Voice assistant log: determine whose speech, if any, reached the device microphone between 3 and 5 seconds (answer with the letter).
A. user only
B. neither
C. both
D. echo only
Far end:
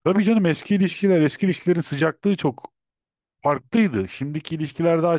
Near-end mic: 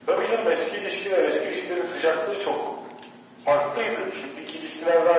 D